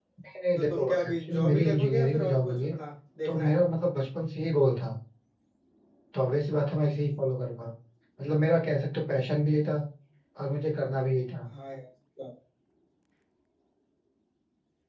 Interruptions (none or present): present